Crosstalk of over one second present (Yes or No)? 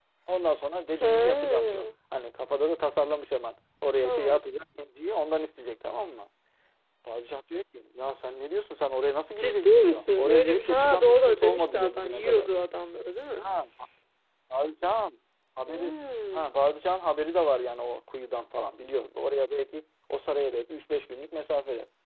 Yes